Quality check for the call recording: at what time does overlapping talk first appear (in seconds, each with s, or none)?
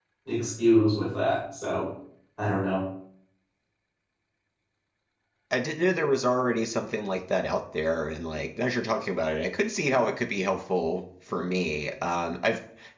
none